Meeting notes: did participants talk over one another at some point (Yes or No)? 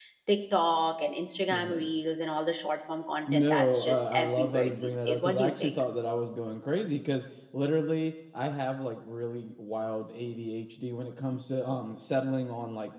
Yes